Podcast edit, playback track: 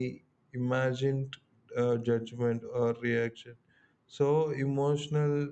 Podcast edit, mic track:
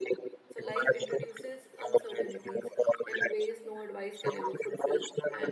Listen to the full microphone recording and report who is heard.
both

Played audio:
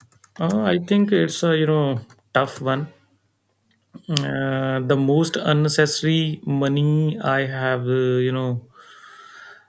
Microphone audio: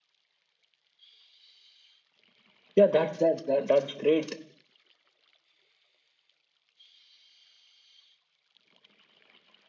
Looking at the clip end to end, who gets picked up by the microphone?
user only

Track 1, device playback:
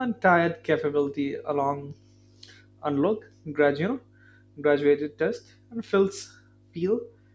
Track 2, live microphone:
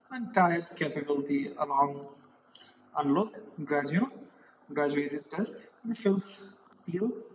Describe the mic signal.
echo only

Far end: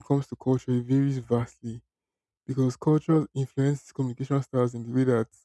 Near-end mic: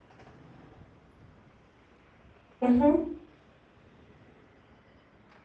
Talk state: user only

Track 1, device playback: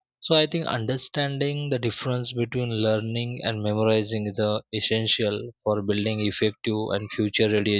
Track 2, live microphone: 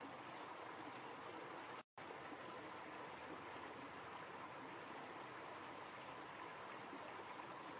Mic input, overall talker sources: neither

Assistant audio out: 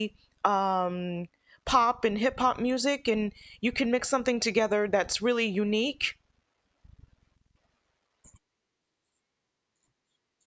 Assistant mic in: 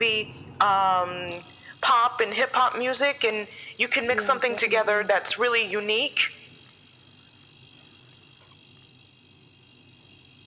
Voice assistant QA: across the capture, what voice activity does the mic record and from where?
both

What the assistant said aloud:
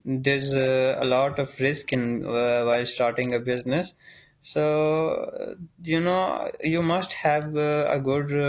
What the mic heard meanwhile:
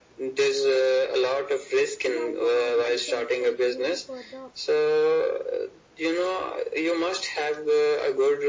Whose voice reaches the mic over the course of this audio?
both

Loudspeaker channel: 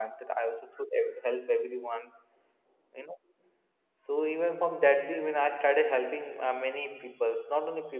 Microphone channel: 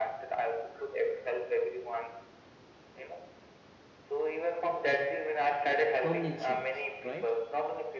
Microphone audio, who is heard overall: both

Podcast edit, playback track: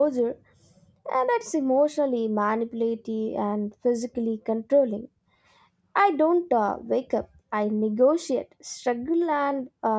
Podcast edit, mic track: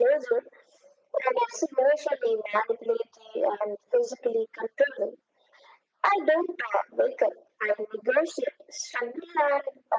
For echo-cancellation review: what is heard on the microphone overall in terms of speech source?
echo only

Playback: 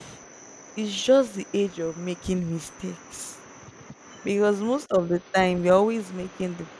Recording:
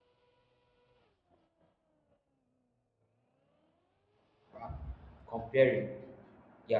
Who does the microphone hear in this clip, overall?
user only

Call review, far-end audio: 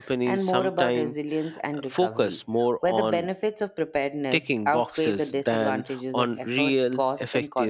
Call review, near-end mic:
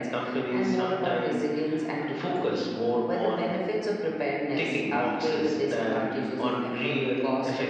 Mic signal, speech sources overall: echo only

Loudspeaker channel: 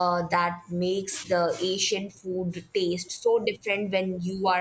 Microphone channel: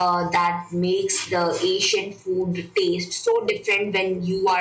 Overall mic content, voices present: echo only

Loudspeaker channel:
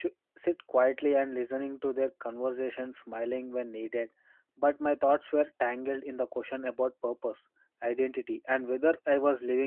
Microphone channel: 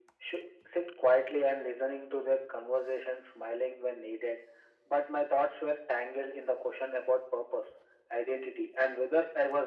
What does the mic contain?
echo only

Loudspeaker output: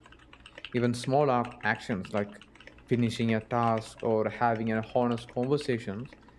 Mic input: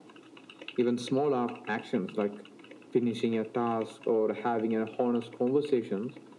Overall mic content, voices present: echo only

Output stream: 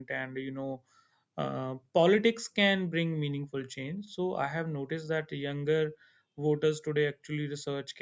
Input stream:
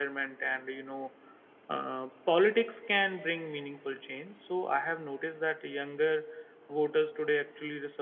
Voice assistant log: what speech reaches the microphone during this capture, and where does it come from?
echo only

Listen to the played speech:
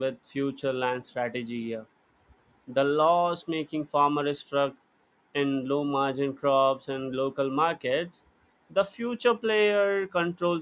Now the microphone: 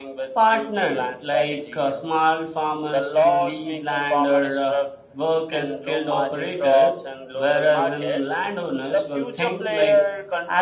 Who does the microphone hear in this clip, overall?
both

